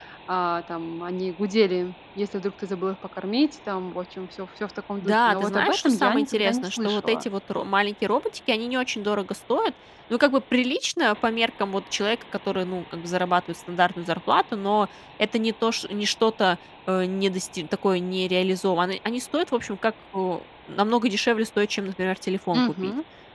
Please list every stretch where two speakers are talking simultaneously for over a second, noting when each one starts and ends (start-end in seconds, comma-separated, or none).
5.0-7.3